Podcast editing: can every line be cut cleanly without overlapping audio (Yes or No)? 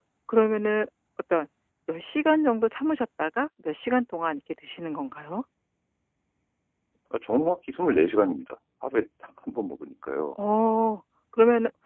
Yes